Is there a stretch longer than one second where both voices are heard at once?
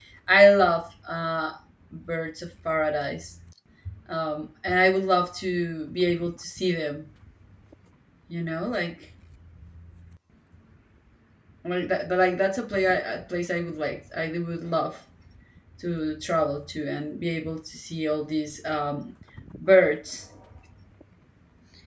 No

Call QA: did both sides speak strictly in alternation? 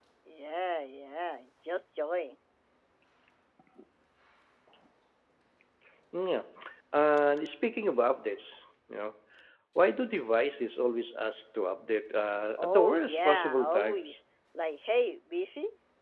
No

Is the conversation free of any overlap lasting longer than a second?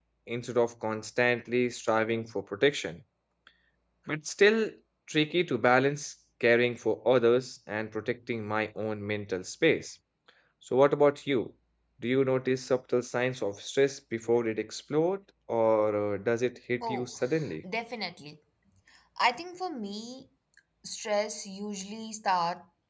Yes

